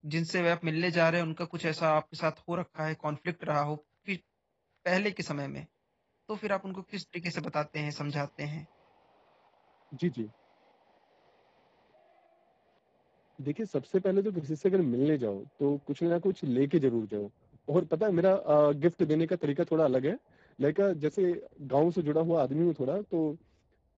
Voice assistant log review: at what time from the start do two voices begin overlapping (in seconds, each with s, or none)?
none